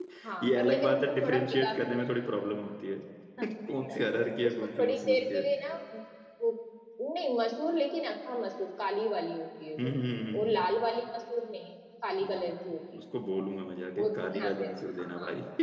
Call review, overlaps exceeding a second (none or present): present